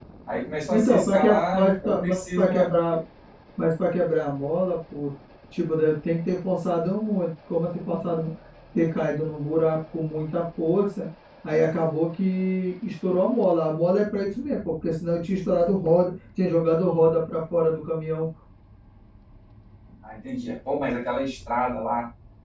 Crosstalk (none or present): present